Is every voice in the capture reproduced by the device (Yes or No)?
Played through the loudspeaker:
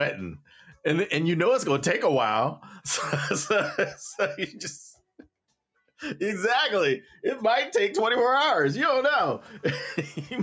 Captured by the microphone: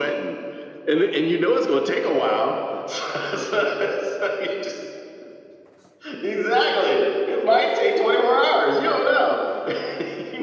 Yes